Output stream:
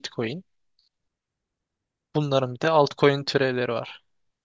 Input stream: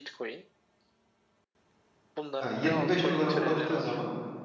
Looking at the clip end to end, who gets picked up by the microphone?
both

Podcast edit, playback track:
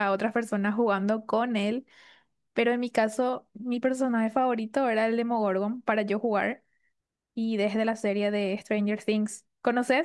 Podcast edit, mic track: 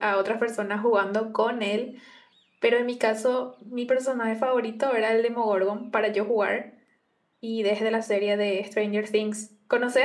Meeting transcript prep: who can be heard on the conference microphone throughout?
echo only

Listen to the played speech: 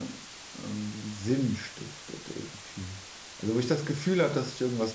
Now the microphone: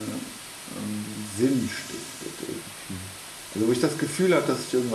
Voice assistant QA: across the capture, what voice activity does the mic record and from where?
echo only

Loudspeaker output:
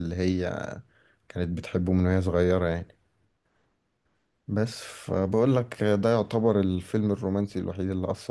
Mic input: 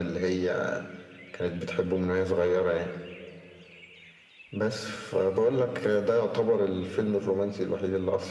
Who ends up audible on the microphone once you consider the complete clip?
echo only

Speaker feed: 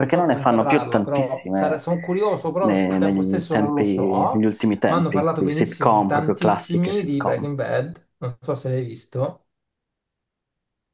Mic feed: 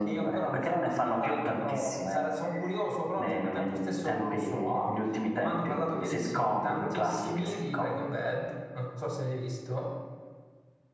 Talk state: echo only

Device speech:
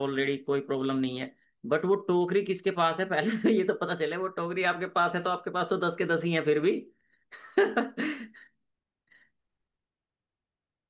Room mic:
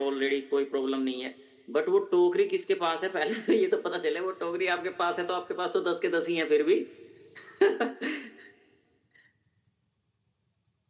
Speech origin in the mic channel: echo only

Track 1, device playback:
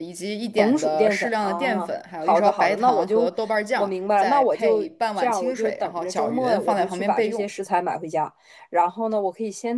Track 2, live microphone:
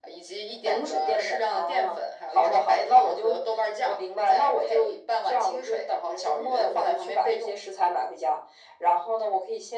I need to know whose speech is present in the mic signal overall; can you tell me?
echo only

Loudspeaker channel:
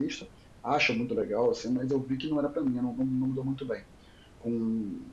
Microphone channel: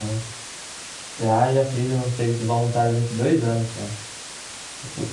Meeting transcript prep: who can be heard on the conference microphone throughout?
user only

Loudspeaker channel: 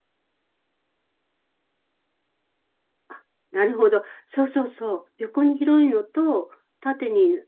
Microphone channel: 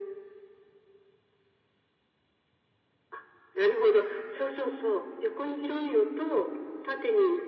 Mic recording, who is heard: echo only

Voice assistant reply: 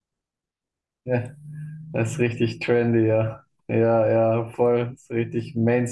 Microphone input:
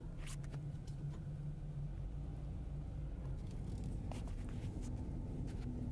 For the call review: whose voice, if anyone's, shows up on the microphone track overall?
neither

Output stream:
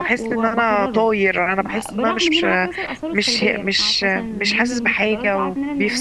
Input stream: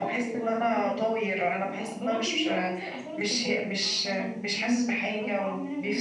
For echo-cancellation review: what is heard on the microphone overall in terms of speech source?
echo only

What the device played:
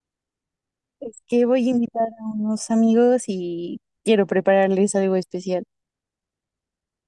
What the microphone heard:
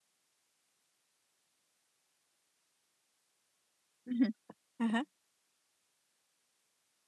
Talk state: user only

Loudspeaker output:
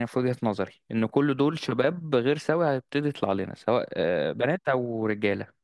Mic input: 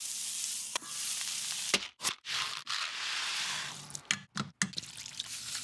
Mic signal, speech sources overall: neither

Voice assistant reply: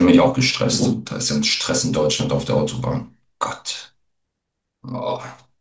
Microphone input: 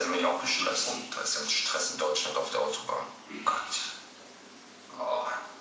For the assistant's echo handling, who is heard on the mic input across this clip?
echo only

